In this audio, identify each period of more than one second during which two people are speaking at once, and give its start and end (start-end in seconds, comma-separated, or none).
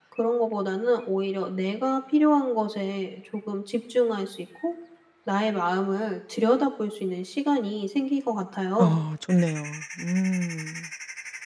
none